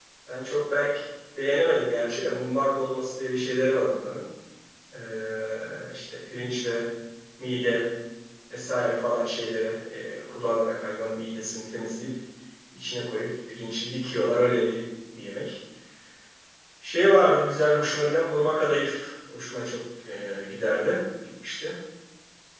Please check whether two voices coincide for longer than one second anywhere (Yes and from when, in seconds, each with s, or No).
No